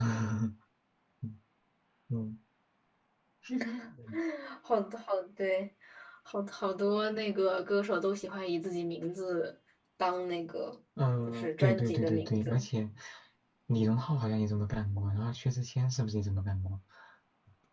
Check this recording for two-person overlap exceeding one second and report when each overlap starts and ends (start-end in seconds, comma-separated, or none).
11.3-12.6